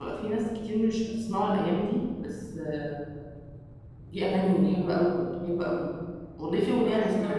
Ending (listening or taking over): listening